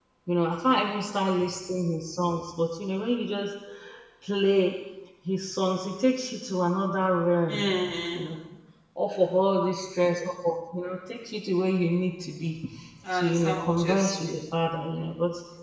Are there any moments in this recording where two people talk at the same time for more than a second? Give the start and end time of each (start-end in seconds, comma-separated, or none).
13.1-14.3